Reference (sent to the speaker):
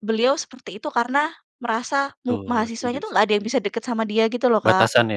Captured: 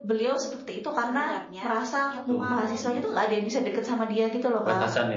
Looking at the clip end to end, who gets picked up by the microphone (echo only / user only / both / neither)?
both